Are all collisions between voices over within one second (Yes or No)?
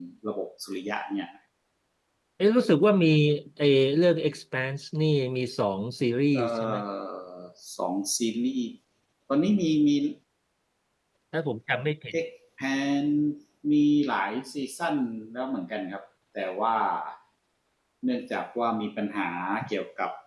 Yes